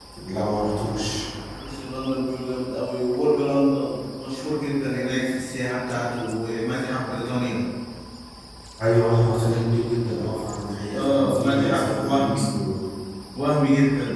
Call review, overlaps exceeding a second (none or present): present